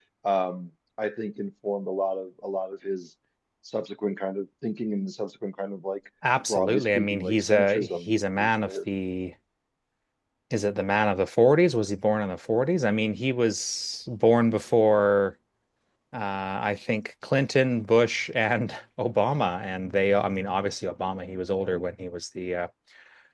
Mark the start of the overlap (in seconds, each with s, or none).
6.5 s